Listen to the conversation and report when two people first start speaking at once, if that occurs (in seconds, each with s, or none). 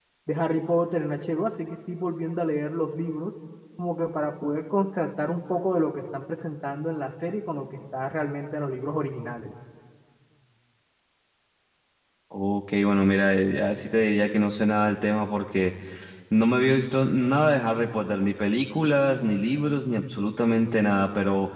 none